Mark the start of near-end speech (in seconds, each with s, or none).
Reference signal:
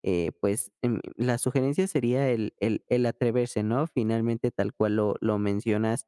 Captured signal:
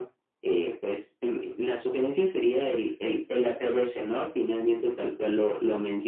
none